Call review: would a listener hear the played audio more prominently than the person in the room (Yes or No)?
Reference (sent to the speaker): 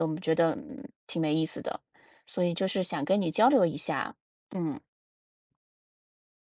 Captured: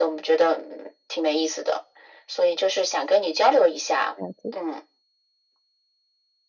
Yes